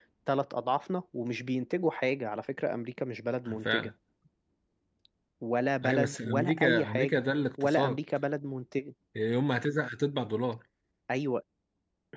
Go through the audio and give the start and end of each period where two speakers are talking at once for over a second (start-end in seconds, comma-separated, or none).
5.8-7.2